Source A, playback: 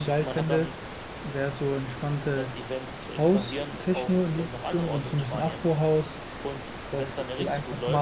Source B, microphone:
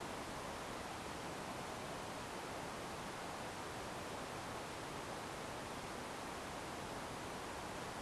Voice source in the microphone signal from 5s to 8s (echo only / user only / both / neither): neither